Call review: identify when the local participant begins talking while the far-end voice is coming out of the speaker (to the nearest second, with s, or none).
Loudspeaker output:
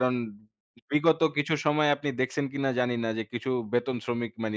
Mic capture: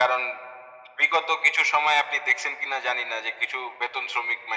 none